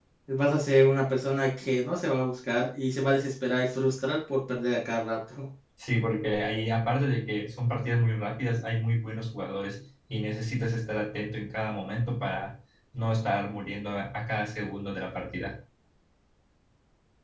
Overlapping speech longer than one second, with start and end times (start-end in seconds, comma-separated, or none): none